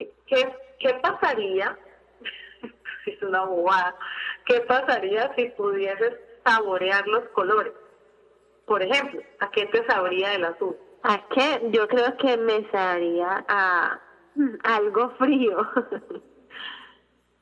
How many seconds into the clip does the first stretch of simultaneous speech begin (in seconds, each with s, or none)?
none